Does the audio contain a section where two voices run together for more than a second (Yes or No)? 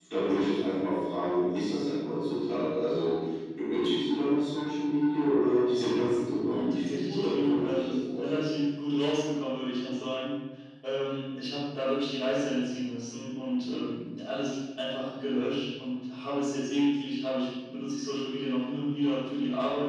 Yes